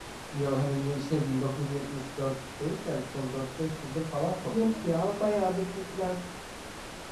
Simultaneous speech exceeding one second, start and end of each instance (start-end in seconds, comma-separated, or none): none